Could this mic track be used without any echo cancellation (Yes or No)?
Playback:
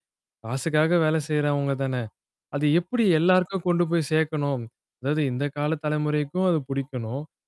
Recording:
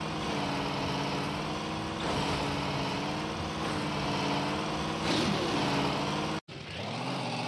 Yes